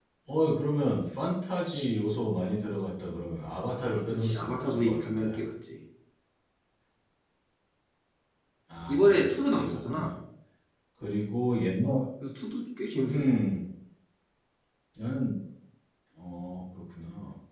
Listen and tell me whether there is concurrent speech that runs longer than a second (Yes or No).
Yes